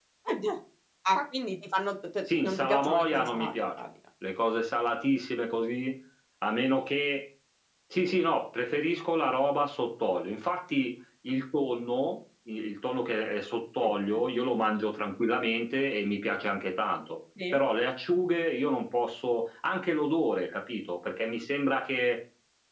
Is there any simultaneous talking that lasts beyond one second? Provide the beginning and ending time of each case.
2.4-3.9

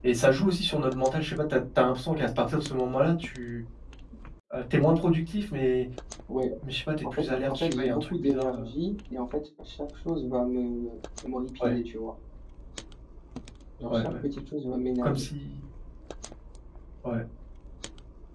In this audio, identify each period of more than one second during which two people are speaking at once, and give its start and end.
7.1-8.7

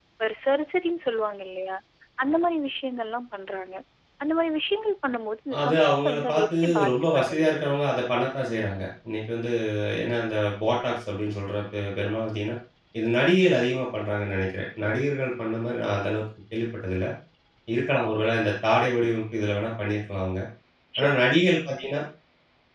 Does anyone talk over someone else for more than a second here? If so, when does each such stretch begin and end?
5.6-8.1

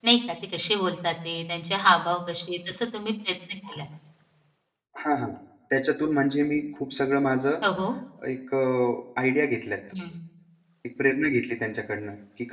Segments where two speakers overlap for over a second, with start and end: none

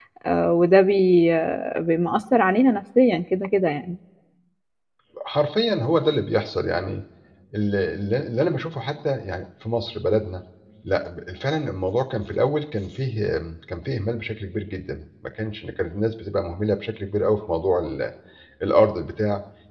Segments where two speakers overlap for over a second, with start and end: none

